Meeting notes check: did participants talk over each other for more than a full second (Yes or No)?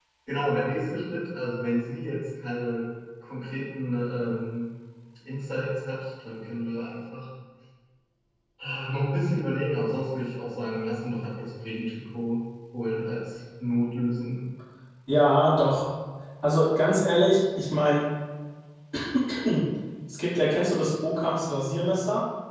No